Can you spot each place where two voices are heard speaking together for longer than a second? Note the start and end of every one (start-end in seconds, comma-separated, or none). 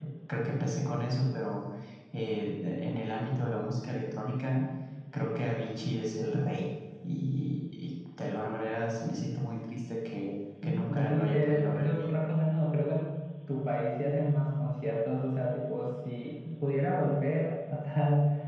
10.6-12.2